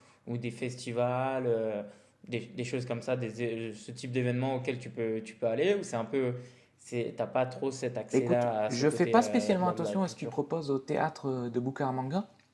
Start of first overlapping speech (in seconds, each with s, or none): 8.1 s